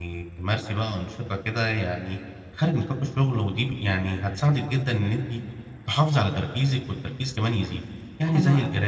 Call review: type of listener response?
listening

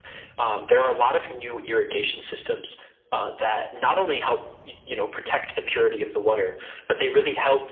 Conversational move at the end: listening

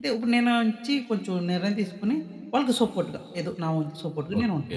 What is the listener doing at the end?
taking over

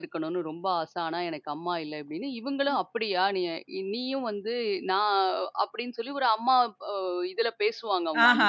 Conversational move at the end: taking over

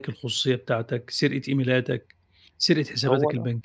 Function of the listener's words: listening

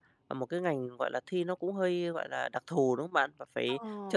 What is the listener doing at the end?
listening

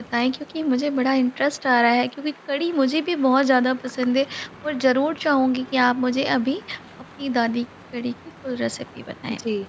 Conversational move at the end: taking over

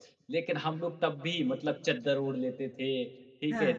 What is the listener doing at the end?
listening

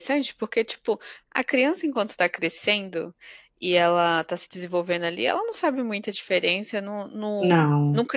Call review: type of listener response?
listening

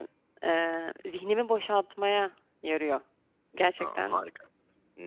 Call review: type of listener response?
taking over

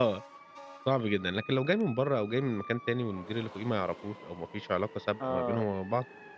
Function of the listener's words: listening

